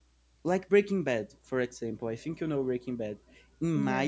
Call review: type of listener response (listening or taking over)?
listening